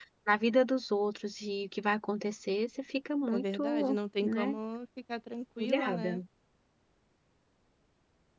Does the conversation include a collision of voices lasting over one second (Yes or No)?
Yes